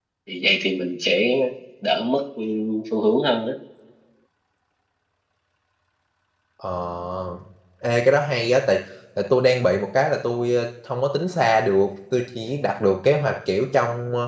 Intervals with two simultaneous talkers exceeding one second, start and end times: none

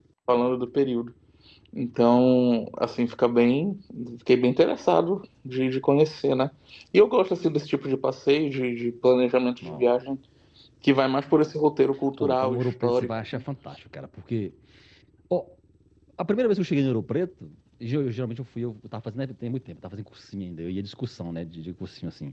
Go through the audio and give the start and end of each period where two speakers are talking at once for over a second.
12.2-13.4

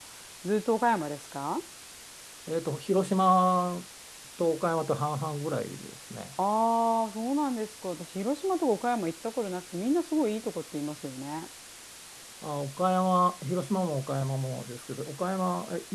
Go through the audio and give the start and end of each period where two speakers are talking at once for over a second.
none

